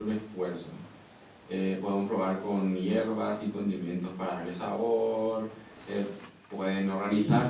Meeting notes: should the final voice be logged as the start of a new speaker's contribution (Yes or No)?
No